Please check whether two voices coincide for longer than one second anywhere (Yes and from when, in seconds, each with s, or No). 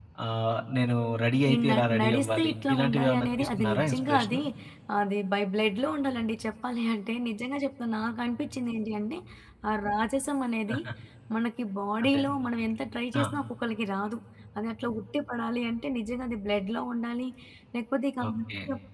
Yes, from 1.5 s